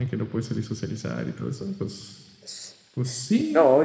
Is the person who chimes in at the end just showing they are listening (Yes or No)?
No